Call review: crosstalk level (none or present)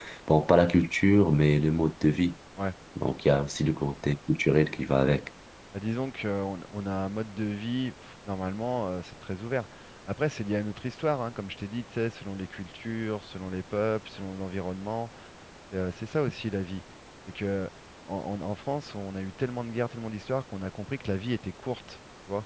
none